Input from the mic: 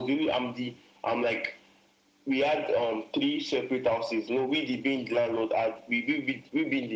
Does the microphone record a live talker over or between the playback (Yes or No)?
No